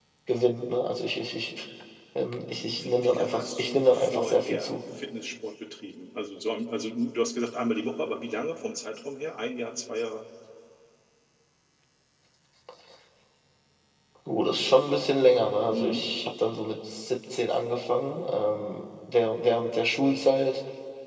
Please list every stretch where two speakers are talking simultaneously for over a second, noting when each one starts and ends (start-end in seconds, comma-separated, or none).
2.7-4.8